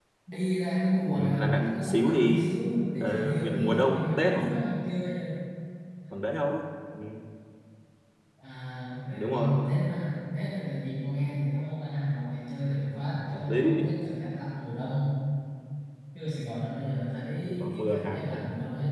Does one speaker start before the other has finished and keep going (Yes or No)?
Yes